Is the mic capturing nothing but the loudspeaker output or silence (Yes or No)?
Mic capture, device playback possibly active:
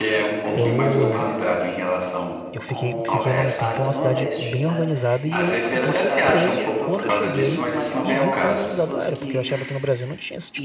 No